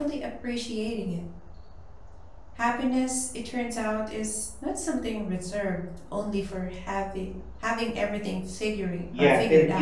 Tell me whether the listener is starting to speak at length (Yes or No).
Yes